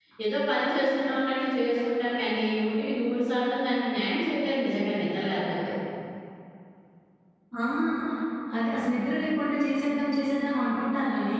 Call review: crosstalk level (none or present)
none